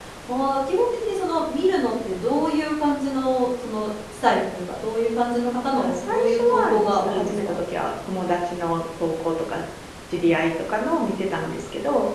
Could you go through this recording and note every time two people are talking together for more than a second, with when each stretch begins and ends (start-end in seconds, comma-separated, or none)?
5.7-7.5